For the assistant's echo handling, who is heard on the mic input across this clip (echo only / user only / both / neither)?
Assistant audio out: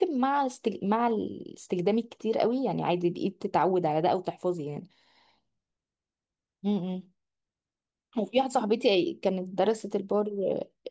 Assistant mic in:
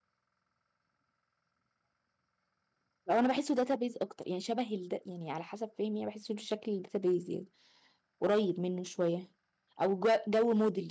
user only